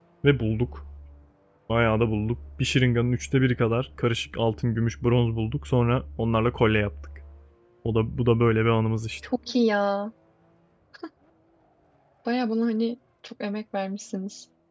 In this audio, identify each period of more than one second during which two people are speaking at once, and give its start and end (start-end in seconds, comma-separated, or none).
none